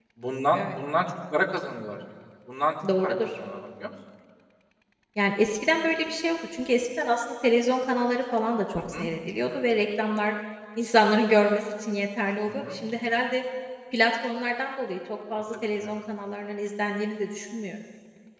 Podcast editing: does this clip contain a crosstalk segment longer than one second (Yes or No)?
No